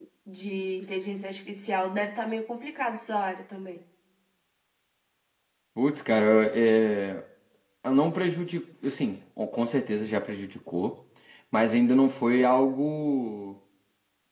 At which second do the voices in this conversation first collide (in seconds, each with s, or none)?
none